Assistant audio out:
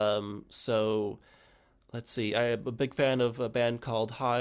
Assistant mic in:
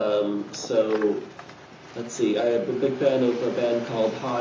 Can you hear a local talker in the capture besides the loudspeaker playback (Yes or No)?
No